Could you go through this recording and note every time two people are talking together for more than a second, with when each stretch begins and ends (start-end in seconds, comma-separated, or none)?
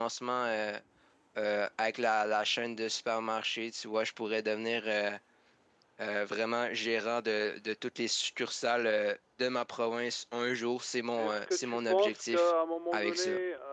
11.2-12.5